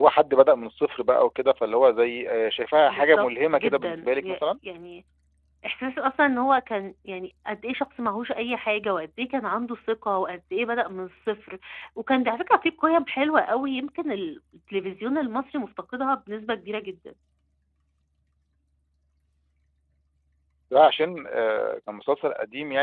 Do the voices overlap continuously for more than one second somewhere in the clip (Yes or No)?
Yes